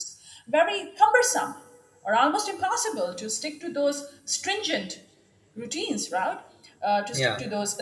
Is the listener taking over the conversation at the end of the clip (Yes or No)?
No